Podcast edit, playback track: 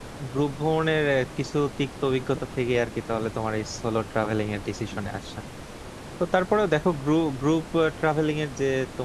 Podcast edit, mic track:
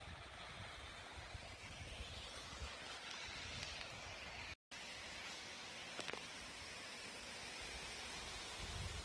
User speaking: No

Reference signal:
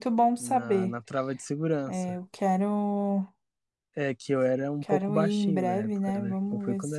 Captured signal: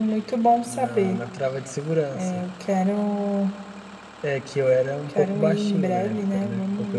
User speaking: No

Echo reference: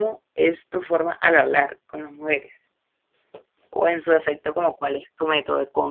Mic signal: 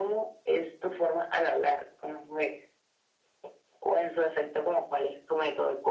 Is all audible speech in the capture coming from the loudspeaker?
Yes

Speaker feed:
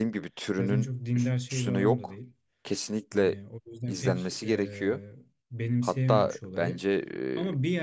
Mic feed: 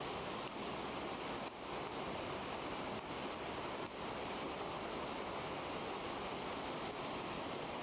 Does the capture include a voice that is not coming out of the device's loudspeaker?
No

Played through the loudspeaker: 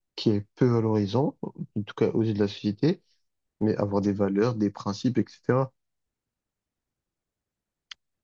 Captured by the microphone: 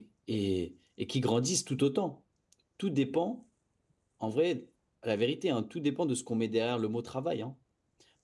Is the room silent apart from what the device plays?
No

